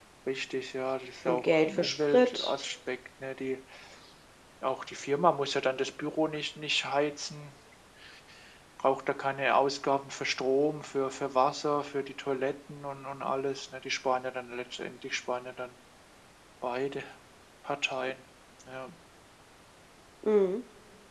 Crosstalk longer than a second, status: present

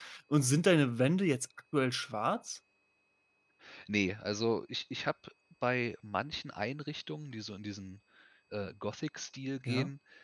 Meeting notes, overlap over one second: none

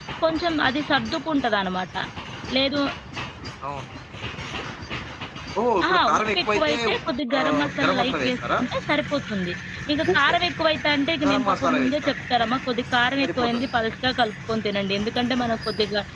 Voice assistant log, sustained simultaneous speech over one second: present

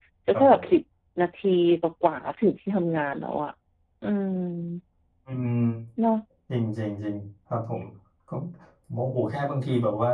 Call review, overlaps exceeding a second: none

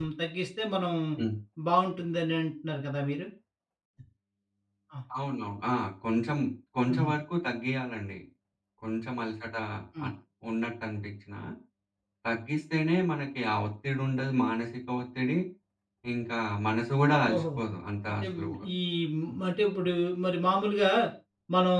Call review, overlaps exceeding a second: none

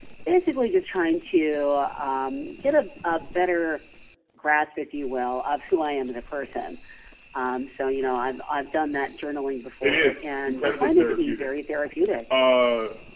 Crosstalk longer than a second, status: present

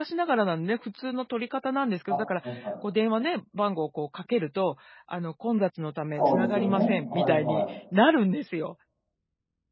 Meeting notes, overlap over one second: present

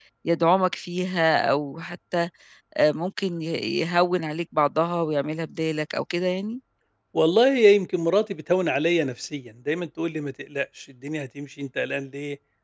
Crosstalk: none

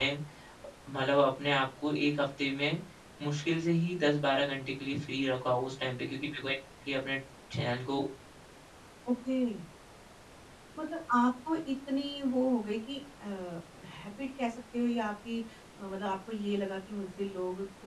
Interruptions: none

